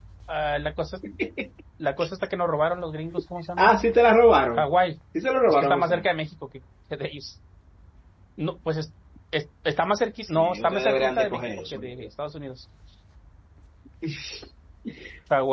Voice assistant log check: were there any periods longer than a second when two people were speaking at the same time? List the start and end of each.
10.2-12.1

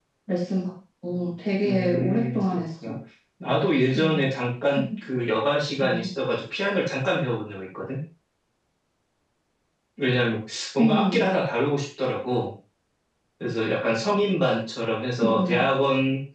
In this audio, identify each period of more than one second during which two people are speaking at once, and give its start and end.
1.6-3.0

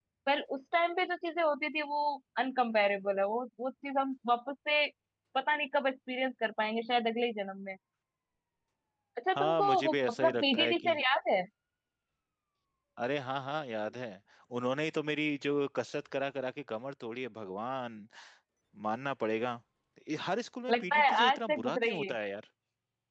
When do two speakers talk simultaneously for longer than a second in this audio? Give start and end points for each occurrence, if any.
9.3-11.0, 20.7-22.1

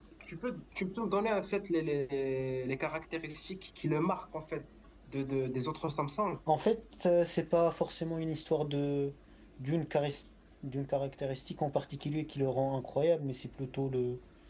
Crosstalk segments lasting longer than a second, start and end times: none

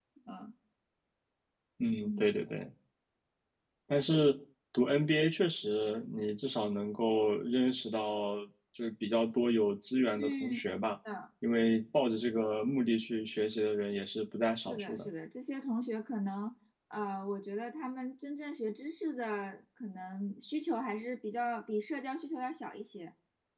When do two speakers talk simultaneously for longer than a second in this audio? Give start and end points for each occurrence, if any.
none

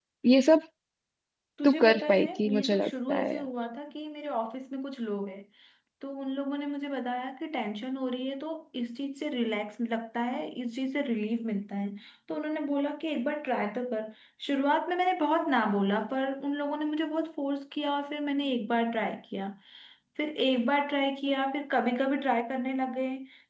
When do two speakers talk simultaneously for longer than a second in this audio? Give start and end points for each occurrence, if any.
1.6-3.4

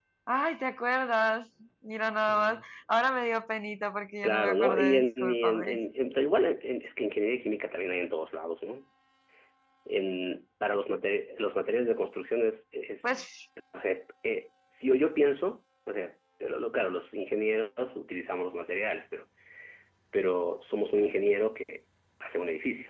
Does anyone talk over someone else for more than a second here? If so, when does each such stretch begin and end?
4.2-5.8

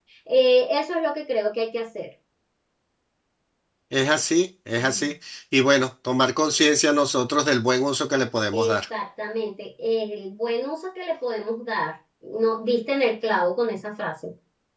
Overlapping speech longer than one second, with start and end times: none

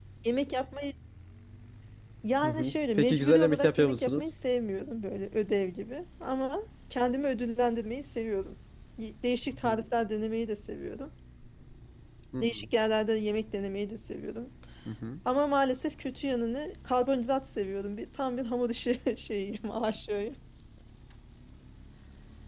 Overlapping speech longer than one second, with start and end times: 2.4-4.3

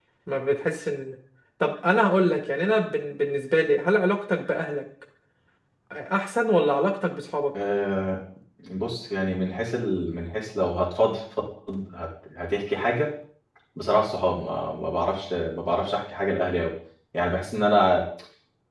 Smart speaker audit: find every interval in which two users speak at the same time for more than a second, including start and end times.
none

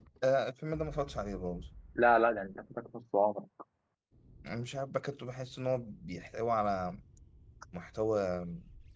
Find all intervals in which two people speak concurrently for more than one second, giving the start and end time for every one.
none

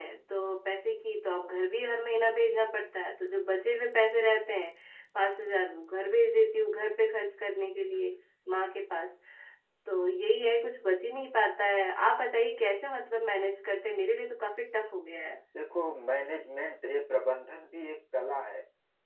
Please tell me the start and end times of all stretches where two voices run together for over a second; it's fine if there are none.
none

